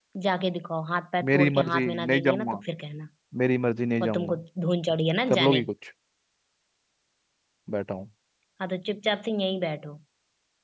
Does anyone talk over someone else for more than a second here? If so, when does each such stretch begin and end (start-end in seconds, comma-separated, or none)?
1.3-2.6